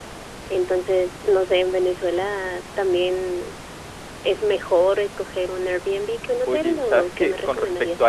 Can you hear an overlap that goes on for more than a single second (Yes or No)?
Yes